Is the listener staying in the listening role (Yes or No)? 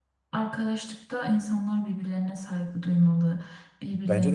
No